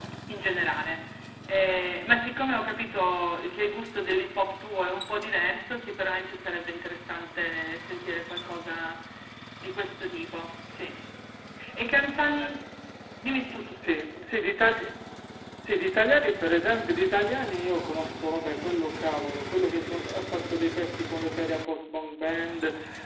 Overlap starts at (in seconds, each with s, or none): none